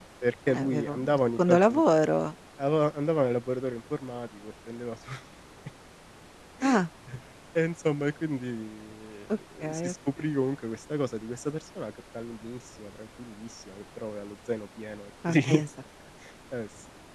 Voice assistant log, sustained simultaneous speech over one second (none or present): present